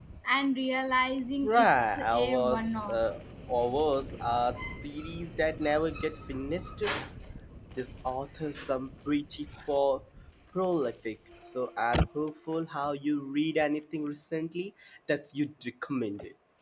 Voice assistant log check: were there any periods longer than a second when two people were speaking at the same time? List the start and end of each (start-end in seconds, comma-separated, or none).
1.4-3.0